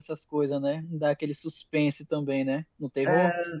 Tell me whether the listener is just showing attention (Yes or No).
No